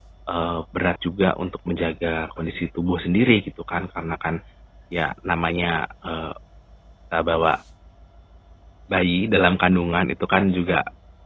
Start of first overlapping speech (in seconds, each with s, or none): none